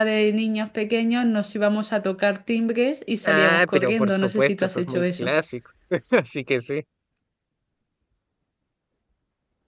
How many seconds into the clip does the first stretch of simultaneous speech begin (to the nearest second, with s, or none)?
3 s